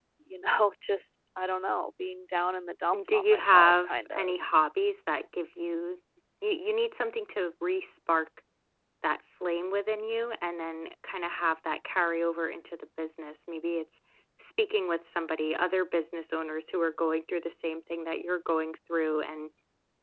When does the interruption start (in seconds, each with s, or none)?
2.9 s